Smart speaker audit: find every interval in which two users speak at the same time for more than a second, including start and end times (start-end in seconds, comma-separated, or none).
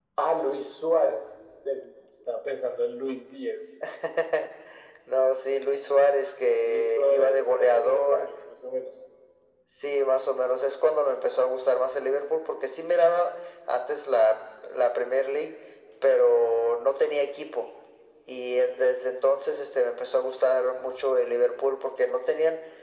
6.6-8.3